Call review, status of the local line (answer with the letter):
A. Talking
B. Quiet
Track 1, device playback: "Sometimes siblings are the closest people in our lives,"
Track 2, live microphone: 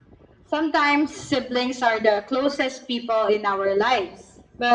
B